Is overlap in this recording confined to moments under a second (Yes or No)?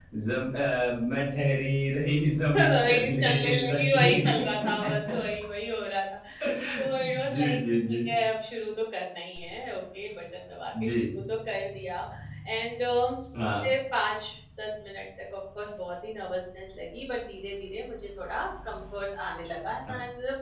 No